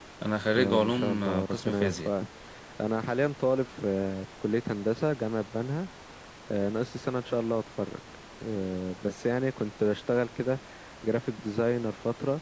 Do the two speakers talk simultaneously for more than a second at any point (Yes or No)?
Yes